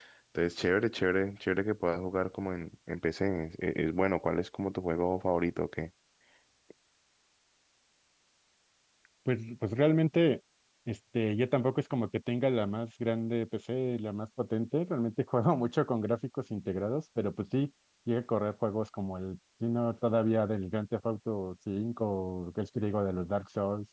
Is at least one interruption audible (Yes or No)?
No